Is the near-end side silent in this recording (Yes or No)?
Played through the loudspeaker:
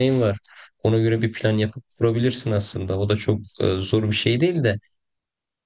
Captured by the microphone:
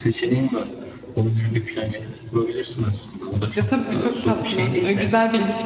No